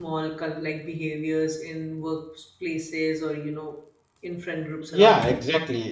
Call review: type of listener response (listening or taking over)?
taking over